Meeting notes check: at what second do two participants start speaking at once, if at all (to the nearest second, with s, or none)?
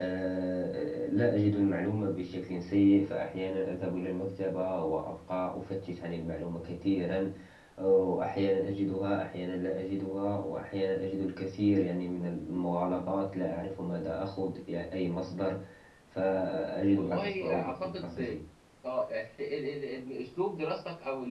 17 s